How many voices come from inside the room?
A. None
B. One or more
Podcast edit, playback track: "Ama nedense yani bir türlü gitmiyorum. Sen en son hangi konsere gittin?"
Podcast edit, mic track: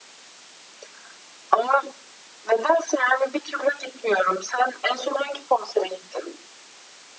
A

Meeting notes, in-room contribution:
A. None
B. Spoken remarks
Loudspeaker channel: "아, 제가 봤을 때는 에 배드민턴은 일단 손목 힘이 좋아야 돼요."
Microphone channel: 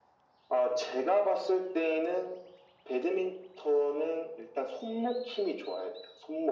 A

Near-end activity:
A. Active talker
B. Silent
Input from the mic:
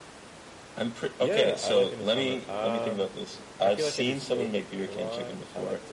A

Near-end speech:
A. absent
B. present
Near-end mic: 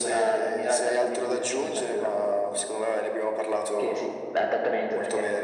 A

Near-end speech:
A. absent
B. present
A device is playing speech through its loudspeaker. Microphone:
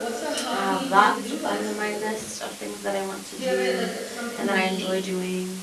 B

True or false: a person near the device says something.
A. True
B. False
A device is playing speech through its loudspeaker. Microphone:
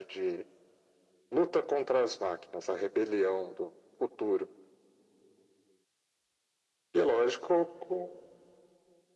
B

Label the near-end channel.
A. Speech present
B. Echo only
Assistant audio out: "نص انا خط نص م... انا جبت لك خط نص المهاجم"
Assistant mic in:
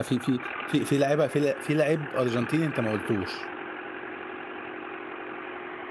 A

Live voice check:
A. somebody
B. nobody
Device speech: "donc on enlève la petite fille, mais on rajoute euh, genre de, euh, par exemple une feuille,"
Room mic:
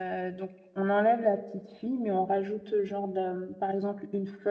B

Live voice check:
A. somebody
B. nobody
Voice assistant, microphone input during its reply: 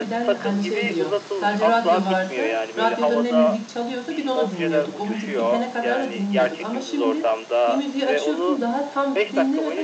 A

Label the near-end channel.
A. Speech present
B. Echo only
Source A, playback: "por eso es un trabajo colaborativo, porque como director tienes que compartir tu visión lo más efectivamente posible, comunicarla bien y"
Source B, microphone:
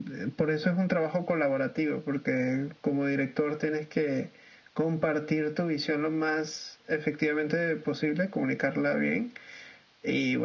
B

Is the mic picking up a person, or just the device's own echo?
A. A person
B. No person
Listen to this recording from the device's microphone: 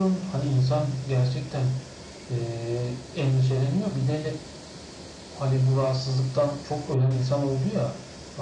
B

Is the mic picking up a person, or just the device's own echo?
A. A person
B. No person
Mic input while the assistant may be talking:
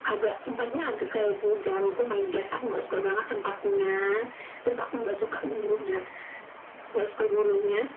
B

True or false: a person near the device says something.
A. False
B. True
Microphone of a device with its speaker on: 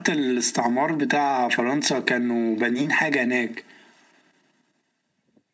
A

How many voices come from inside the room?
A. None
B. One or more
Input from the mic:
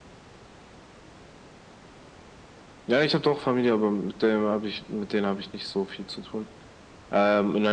A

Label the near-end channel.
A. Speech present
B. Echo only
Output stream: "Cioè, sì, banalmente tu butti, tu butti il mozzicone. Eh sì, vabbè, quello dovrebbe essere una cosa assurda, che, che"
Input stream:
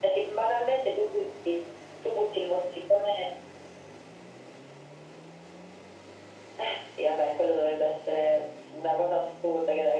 B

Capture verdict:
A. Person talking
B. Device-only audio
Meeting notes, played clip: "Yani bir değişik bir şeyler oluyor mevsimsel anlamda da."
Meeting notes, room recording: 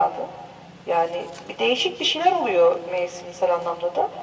B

